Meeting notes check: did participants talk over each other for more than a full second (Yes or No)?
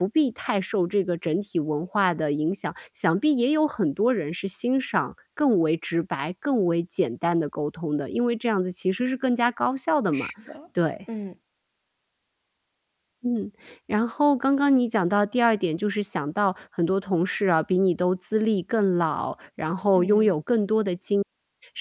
No